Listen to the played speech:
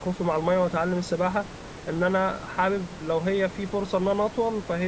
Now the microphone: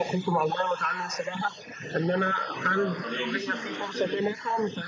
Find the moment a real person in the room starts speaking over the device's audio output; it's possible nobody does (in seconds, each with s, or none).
2.7 s